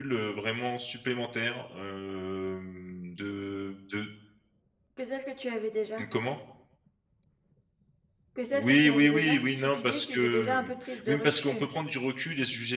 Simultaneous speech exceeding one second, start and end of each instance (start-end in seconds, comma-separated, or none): 8.5-11.7